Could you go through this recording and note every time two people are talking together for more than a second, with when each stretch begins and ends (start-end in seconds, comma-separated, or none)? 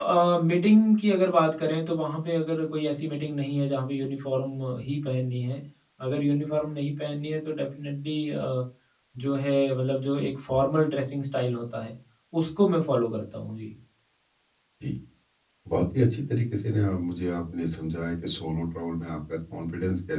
none